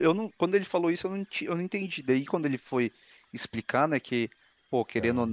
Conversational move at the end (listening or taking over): listening